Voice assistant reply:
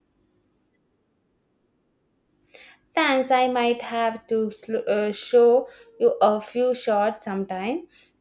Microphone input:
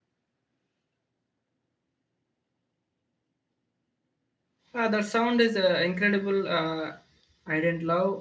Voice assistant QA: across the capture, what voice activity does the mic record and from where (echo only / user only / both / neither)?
user only